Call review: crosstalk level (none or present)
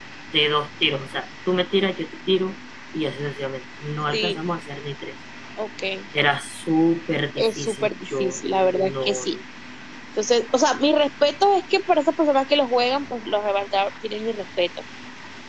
present